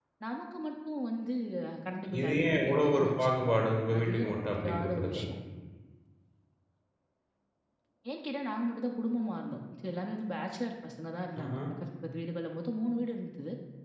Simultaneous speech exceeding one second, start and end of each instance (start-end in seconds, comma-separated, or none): 2.2-3.5, 4.0-5.2